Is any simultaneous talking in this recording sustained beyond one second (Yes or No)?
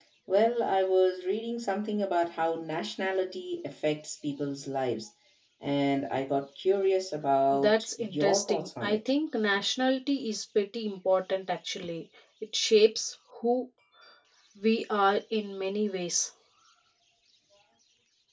Yes